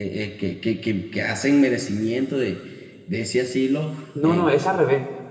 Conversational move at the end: taking over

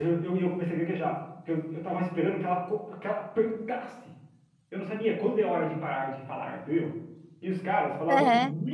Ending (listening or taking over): listening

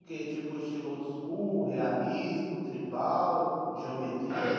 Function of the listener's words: listening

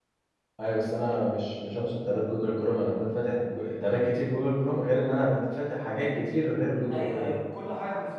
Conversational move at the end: taking over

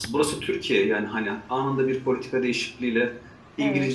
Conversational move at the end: listening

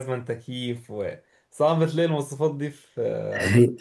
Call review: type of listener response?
taking over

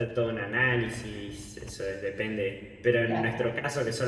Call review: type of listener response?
listening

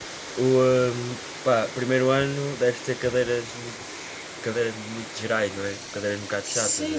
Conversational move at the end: taking over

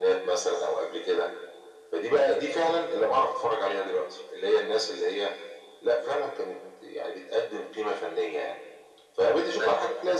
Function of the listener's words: listening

